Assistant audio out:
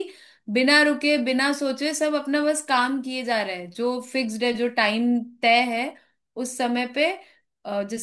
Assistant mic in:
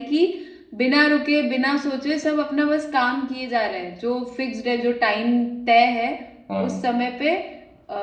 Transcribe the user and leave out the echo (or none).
हाँ